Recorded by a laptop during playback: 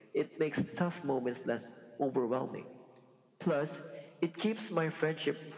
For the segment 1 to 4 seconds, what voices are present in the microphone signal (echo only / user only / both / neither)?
echo only